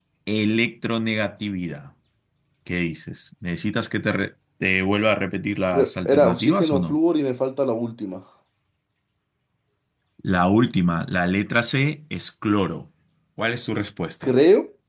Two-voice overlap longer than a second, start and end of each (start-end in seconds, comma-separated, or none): 5.7-7.0